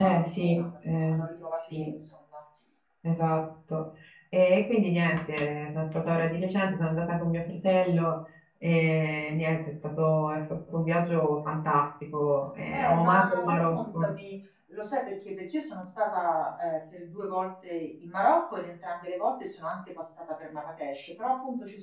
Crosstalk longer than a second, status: present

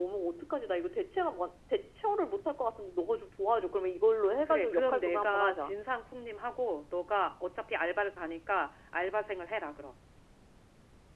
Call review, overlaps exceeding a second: present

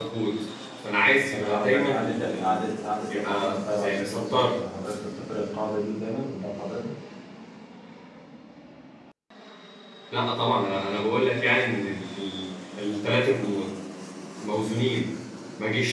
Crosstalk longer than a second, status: present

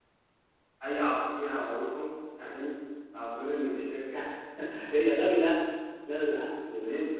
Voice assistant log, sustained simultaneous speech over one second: none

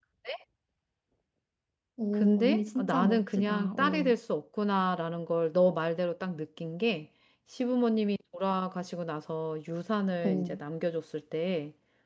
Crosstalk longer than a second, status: present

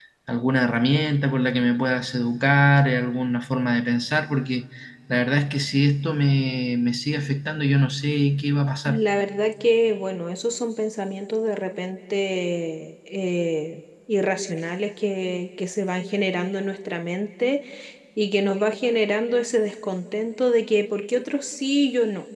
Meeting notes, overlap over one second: none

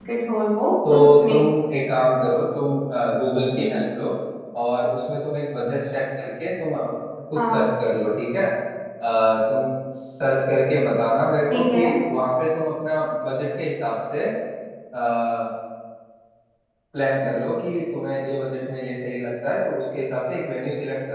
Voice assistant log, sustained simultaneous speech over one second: none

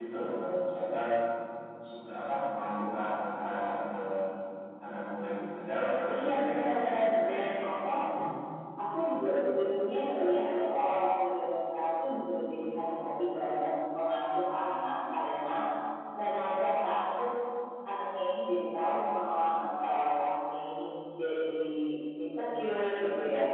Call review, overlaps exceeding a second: present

